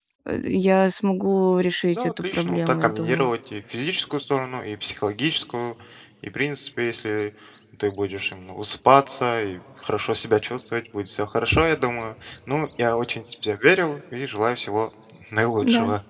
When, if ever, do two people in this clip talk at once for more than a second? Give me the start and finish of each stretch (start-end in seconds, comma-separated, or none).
1.9-3.3